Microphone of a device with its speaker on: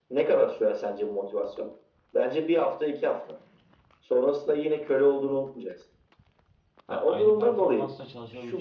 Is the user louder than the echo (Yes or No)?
No